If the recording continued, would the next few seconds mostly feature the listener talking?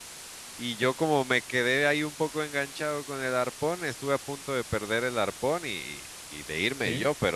No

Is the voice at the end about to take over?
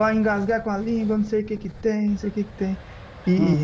No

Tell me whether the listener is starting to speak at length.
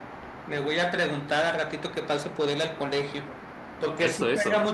No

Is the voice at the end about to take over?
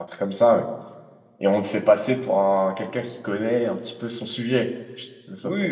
Yes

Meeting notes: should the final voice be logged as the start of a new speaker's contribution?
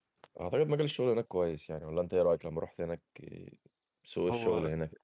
Yes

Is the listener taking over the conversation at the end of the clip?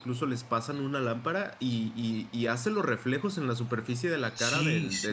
Yes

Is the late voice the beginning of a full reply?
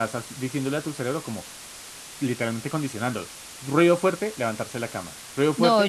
Yes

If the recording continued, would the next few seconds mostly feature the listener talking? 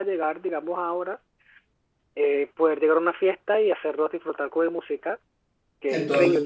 Yes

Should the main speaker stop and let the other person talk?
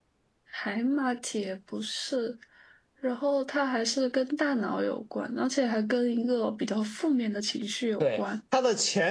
Yes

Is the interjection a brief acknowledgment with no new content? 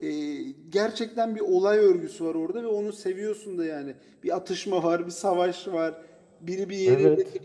Yes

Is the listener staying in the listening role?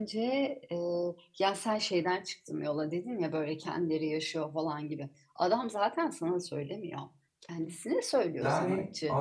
No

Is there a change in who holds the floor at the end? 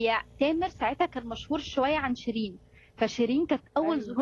No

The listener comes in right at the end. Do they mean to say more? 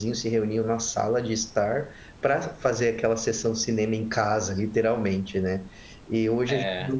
No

